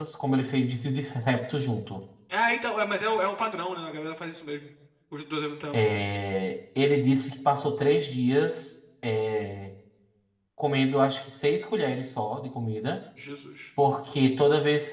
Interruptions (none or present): none